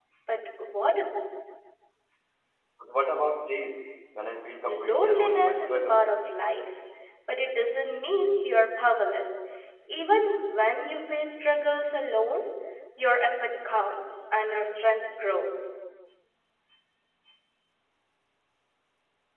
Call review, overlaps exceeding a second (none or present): present